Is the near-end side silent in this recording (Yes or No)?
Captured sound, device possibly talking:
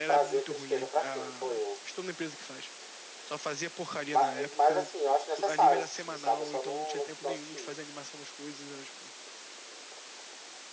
No